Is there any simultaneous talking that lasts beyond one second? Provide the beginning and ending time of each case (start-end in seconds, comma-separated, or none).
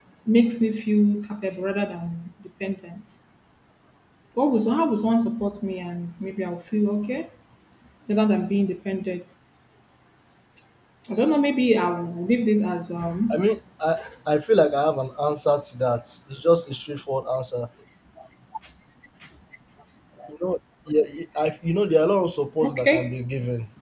none